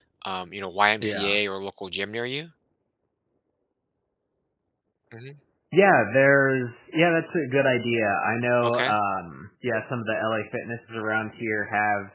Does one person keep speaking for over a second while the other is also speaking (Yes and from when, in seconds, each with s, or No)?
No